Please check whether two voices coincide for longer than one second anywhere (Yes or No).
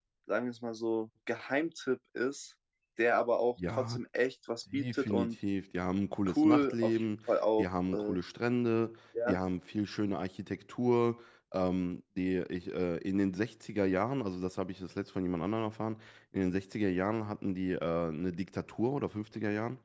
Yes